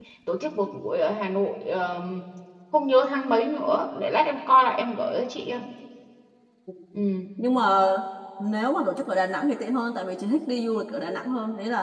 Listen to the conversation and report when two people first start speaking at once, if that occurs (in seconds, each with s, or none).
none